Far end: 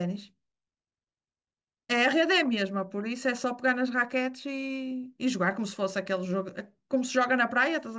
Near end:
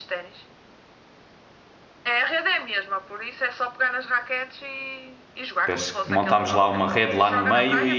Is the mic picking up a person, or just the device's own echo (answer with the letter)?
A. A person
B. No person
A